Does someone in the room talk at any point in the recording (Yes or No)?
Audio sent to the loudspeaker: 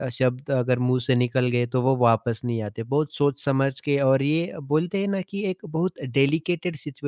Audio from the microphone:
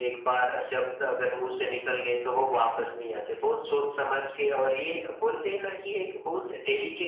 Yes